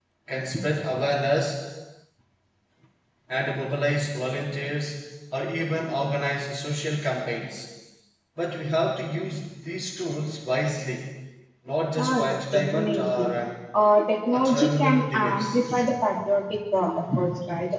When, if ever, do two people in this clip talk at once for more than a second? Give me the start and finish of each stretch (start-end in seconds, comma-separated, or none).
12.0-13.3, 14.3-15.6